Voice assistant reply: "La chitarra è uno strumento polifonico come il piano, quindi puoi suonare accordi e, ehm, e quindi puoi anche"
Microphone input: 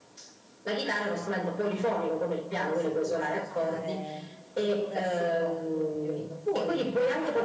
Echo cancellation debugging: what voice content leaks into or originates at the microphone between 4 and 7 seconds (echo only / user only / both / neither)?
both